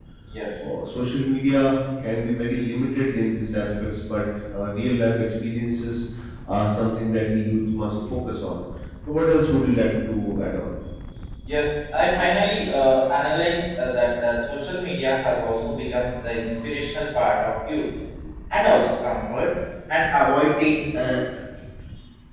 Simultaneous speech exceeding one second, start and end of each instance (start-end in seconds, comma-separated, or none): none